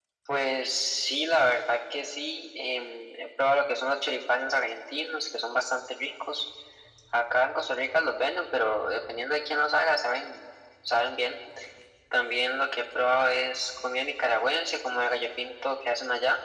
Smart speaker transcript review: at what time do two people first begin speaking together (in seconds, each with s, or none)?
none